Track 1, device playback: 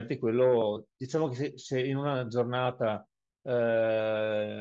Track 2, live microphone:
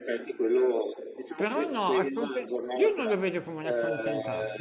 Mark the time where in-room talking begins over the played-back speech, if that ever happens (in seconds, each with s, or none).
1.3 s